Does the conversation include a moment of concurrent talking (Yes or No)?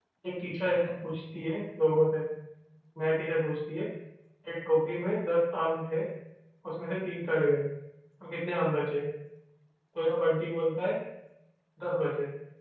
No